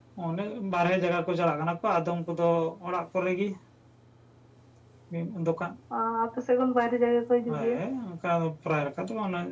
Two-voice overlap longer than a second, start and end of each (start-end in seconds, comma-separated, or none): none